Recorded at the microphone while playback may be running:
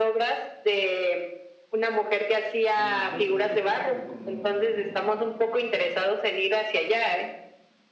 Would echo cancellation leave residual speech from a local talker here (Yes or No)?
Yes